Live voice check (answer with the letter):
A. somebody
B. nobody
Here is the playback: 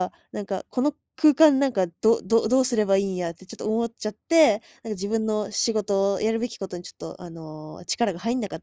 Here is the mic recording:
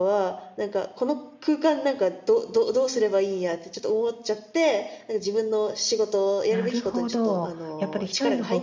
A